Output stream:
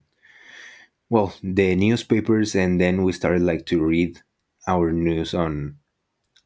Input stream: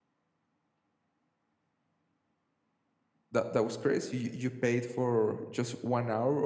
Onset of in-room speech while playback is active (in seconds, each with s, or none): 3.3 s